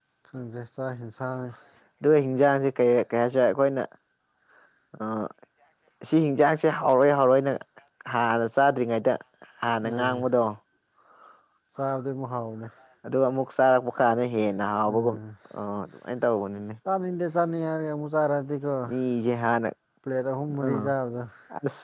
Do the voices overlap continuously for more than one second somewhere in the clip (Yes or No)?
No